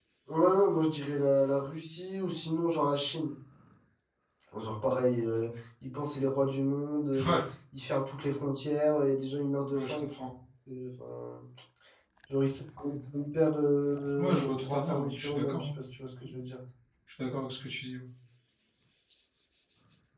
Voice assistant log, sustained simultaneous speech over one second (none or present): present